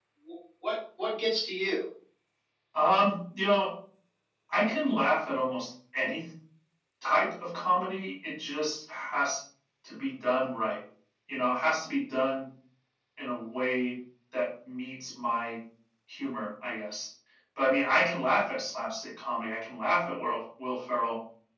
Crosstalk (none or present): none